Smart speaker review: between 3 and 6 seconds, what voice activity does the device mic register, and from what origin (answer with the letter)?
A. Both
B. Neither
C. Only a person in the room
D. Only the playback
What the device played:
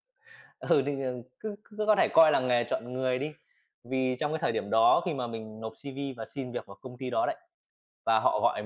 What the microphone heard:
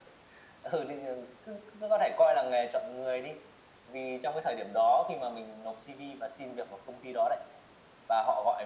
D